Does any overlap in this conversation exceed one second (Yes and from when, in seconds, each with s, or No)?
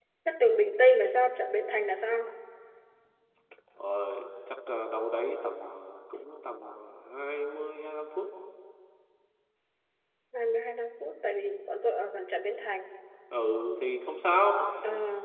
No